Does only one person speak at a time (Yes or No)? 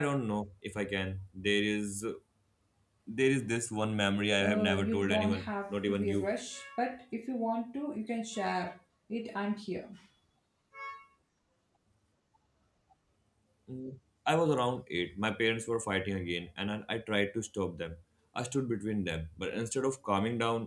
No